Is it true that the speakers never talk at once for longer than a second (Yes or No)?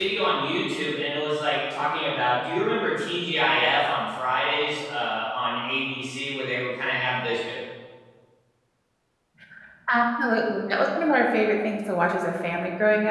Yes